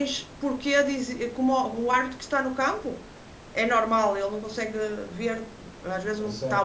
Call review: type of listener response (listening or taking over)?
listening